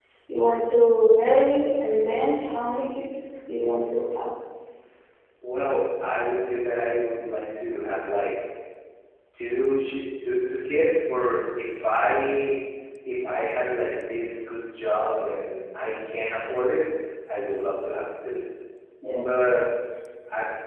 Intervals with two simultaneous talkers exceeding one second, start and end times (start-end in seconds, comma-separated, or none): none